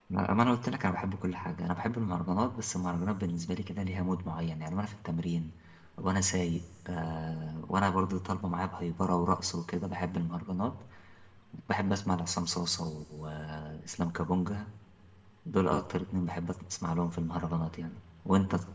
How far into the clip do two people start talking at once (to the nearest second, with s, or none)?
none